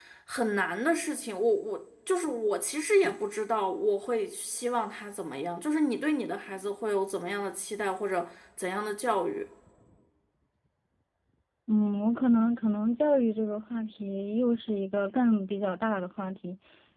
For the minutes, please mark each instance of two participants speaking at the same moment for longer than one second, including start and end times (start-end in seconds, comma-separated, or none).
none